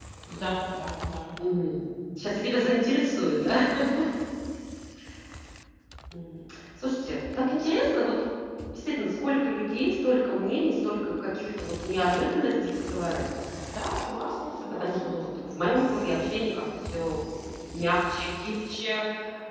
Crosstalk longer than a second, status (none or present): none